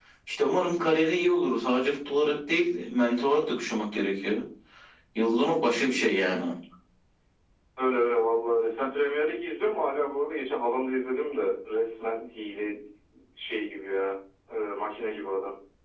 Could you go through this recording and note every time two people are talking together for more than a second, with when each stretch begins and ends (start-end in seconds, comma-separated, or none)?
none